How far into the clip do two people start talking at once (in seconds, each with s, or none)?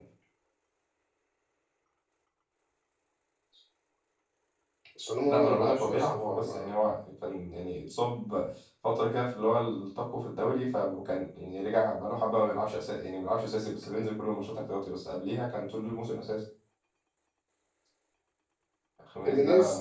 5.3 s